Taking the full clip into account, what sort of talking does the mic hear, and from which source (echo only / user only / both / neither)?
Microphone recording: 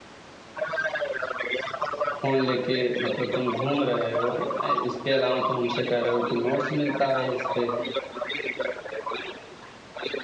both